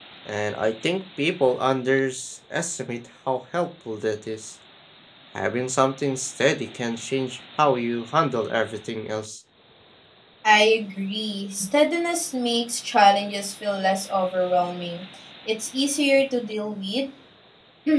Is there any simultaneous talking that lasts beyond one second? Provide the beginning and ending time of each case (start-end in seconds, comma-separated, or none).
none